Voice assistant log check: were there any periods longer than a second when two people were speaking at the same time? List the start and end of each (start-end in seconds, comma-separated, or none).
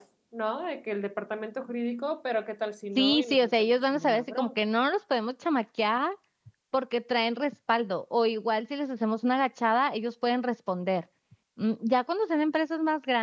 3.0-4.5